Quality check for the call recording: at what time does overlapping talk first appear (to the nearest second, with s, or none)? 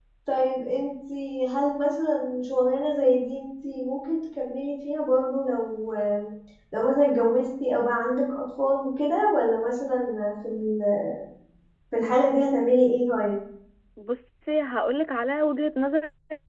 none